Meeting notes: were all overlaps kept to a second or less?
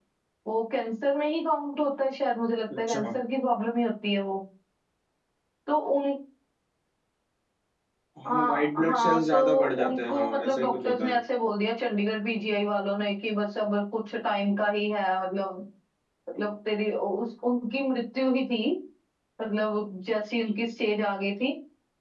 No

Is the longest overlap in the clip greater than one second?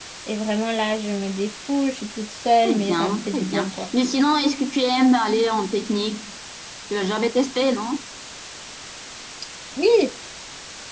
Yes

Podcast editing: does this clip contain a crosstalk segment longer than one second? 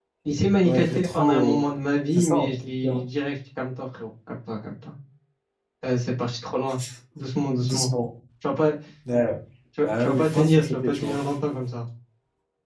Yes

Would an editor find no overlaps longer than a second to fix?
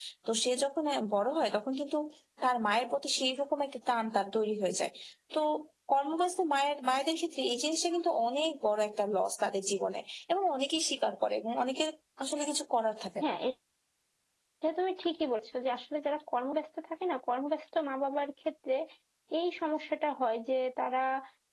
Yes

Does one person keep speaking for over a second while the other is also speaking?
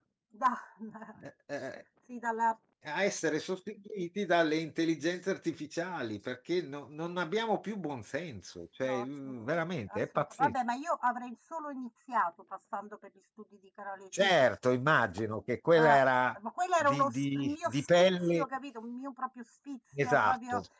Yes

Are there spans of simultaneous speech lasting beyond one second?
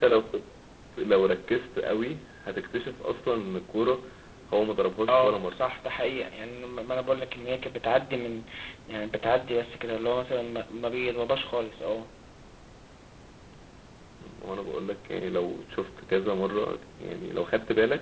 No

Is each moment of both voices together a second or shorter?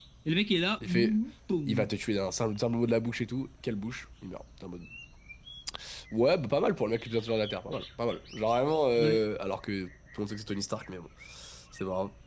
Yes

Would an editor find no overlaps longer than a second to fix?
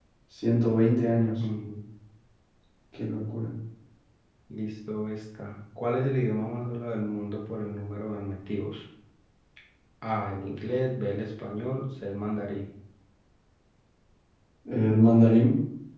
Yes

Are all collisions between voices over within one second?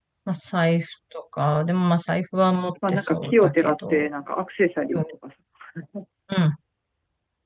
No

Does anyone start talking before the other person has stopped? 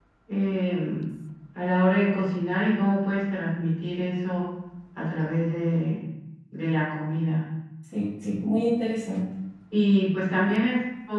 No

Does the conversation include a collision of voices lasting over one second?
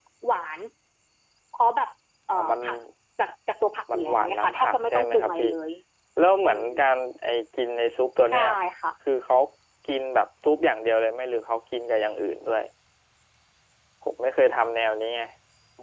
Yes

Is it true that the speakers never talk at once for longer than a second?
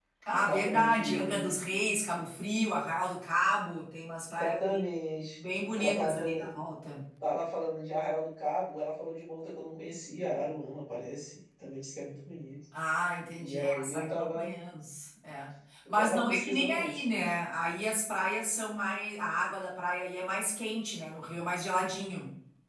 No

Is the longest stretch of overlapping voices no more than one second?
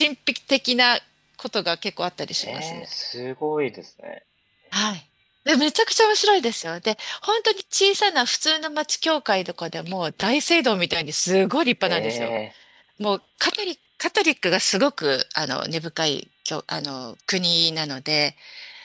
Yes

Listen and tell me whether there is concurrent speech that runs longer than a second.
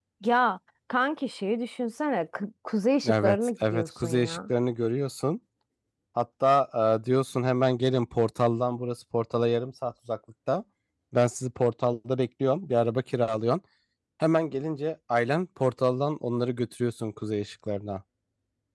Yes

